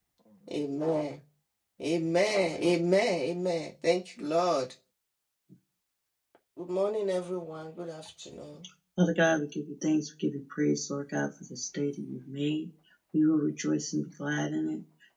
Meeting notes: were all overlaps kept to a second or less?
Yes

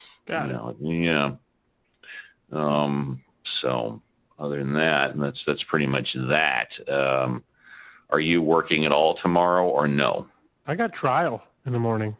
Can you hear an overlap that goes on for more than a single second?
No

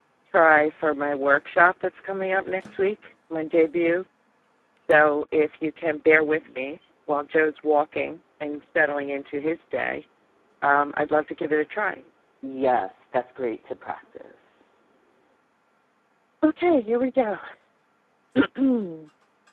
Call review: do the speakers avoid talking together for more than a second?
Yes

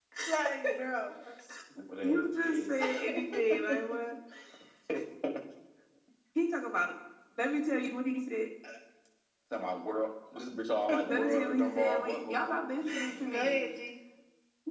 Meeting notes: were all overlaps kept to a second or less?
No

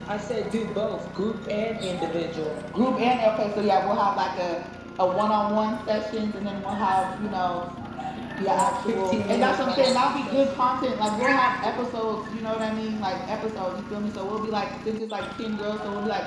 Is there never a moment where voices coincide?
No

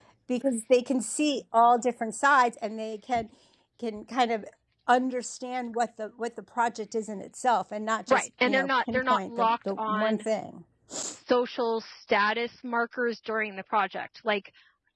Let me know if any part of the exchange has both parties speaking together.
Yes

